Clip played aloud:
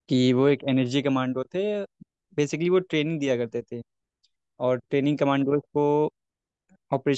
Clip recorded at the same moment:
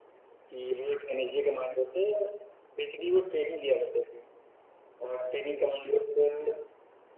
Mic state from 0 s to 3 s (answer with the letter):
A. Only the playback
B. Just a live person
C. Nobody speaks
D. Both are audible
A